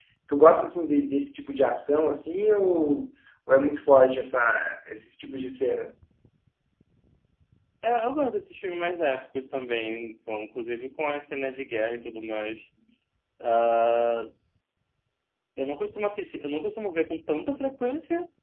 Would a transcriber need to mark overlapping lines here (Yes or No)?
No